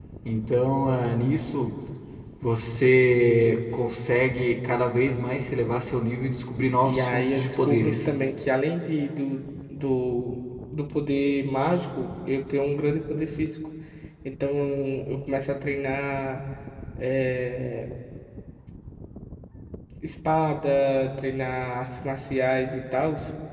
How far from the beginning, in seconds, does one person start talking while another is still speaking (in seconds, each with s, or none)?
6.8 s